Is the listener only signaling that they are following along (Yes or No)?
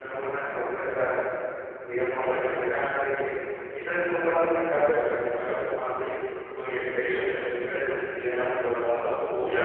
No